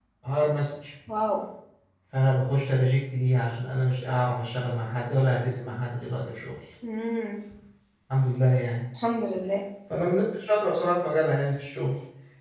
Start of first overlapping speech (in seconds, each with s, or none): none